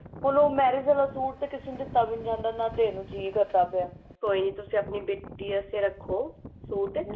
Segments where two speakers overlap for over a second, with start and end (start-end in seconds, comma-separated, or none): none